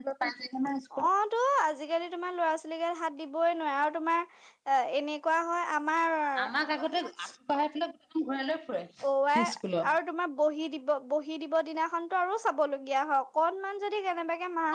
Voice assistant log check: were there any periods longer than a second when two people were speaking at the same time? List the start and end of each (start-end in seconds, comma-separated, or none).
none